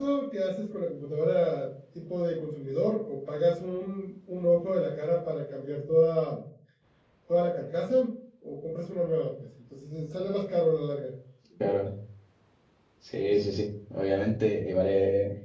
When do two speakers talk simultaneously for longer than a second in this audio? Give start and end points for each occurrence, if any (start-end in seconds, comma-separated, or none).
none